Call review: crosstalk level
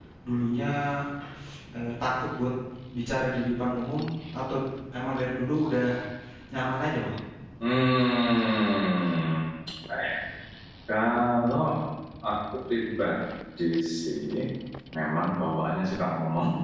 none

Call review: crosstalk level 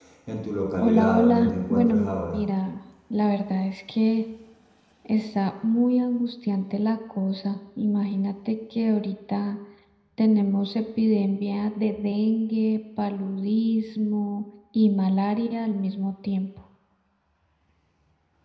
present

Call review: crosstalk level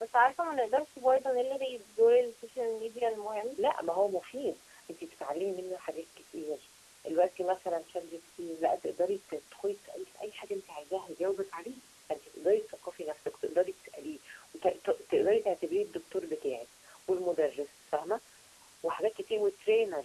none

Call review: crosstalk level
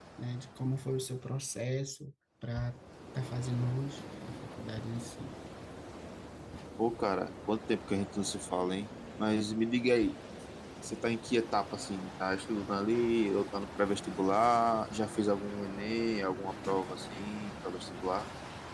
none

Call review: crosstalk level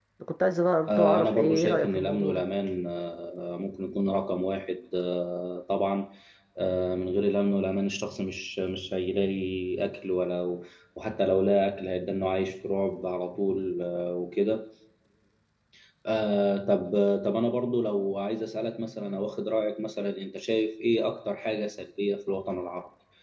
present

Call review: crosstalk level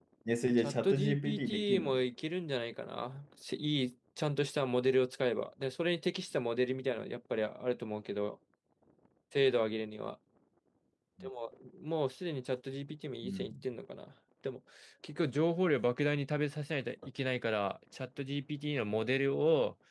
present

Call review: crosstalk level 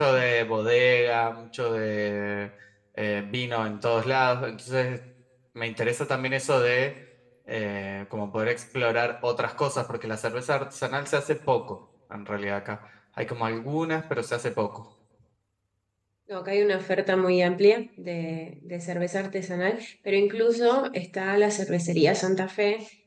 none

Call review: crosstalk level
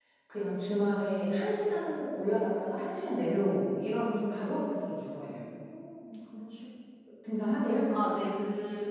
none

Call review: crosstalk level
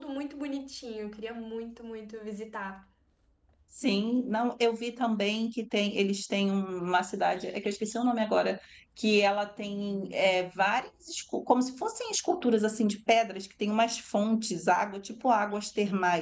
none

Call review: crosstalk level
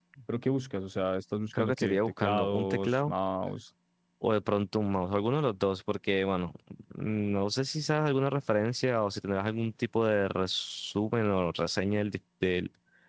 present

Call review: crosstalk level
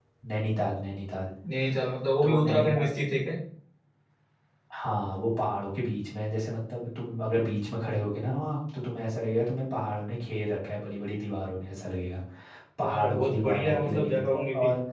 present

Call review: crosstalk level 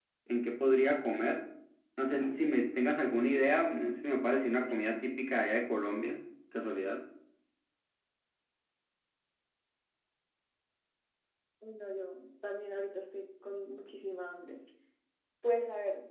none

